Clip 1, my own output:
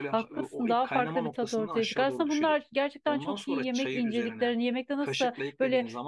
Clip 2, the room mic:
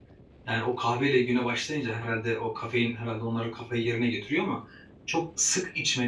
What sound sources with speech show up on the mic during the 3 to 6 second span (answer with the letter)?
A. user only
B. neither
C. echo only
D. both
A